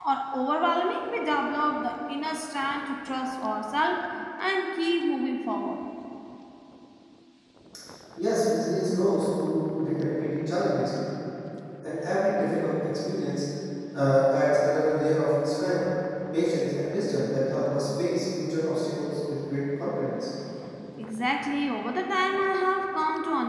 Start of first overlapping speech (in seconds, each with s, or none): none